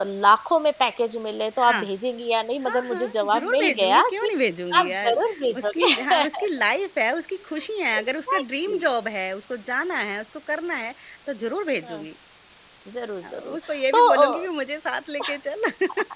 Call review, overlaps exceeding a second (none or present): present